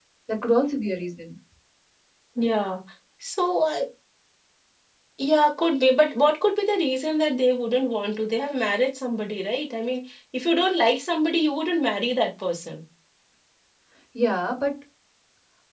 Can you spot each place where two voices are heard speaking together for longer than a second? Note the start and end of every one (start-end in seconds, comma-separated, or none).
none